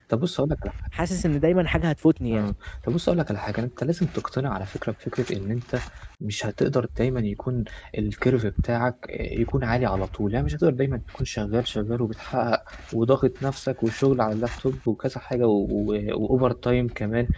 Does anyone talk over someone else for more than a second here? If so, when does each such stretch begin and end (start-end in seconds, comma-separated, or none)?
none